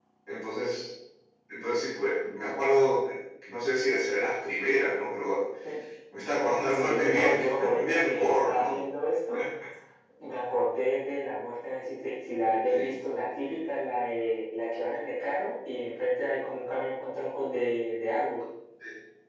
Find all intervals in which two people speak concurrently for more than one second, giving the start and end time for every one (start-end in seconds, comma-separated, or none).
6.7-8.8